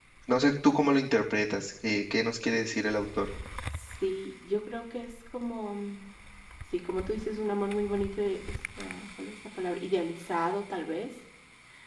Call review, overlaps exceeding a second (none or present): none